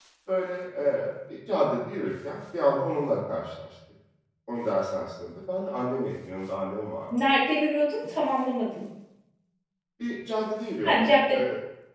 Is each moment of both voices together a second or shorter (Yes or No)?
Yes